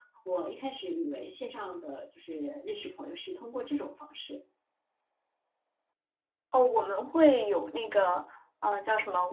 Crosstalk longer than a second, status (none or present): none